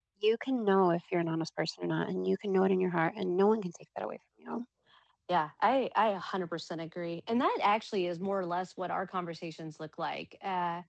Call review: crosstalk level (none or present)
none